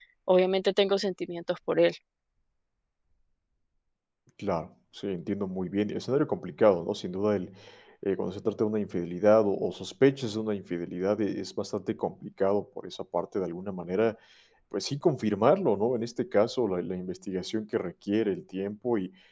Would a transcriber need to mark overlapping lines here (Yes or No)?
No